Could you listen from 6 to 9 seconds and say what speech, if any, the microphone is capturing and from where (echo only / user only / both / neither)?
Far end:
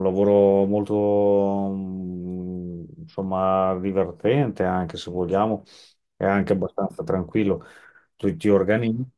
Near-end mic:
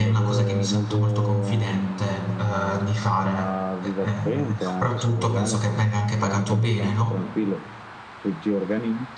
both